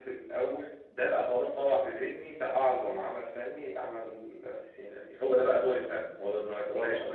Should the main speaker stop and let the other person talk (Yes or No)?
No